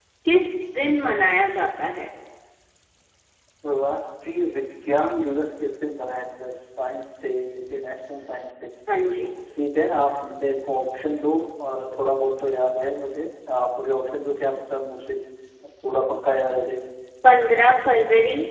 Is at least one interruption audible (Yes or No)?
No